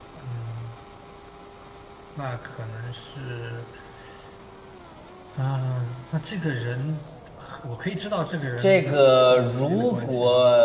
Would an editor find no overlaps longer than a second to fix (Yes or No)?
No